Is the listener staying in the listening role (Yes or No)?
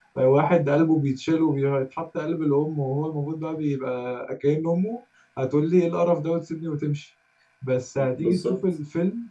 Yes